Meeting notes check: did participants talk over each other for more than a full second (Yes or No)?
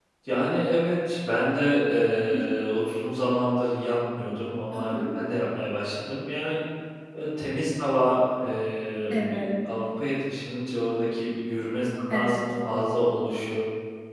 No